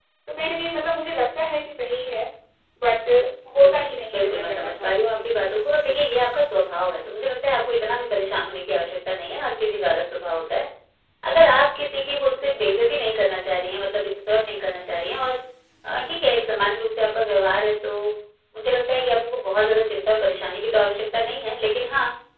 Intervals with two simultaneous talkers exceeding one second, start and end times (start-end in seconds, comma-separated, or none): 3.6-5.4